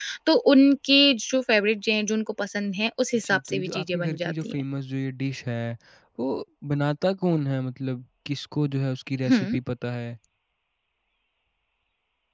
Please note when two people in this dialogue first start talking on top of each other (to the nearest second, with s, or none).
3 s